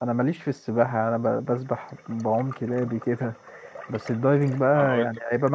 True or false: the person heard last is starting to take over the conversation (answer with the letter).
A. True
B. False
B